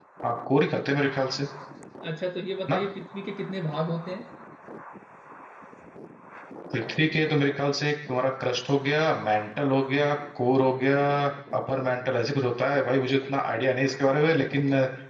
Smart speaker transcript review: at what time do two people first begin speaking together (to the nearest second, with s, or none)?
none